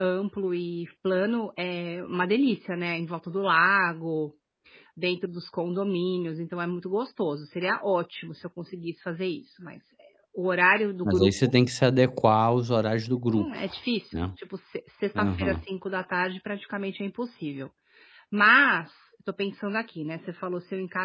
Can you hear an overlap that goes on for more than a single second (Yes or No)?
No